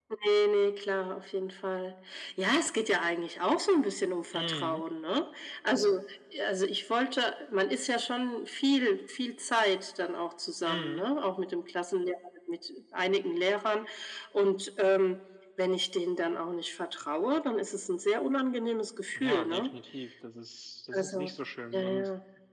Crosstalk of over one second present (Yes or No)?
No